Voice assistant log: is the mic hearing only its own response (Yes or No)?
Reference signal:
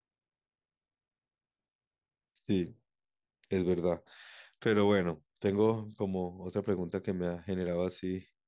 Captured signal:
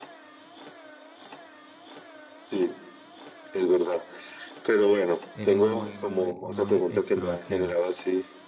No